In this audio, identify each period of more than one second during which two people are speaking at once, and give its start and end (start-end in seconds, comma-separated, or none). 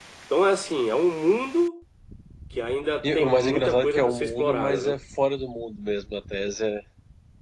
3.0-5.0